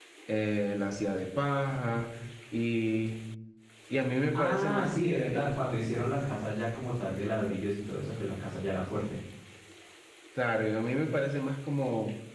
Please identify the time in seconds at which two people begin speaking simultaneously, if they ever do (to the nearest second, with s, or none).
4 s